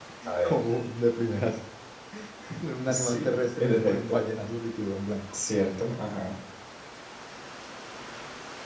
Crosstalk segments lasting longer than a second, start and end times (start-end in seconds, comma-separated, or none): 2.9-4.2